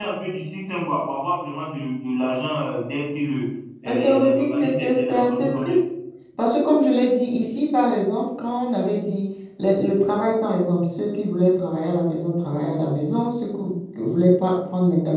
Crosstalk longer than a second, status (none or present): present